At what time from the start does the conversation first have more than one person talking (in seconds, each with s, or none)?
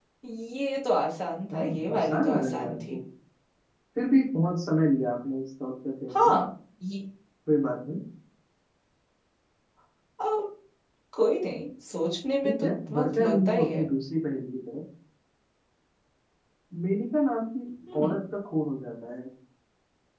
1.5 s